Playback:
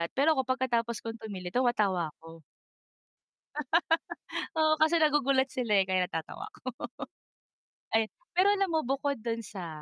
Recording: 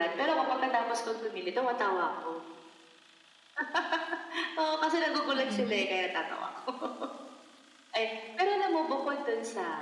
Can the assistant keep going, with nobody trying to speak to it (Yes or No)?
No